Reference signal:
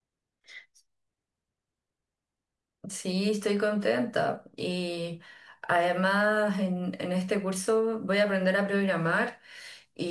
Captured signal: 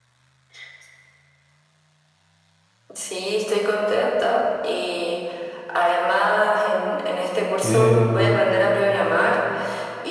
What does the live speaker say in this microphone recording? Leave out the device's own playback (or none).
Eh,